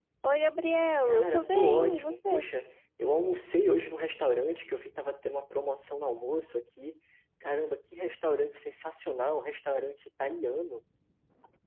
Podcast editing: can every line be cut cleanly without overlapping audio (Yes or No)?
No